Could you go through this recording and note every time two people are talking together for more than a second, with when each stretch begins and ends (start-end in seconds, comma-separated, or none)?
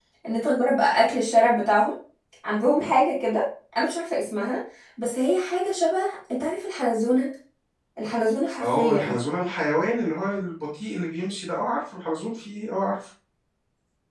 none